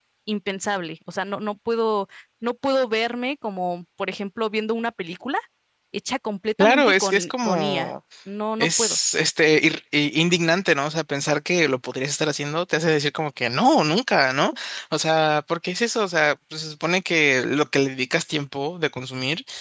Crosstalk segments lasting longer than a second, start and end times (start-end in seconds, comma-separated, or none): 6.6-7.9